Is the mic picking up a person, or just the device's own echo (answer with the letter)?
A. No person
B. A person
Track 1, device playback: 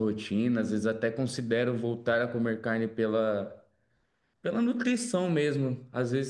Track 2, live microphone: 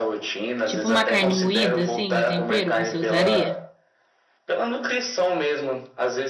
B